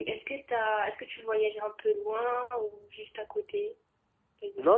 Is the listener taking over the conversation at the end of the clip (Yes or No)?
Yes